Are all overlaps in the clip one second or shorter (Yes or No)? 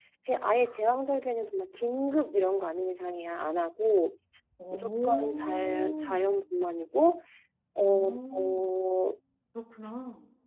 No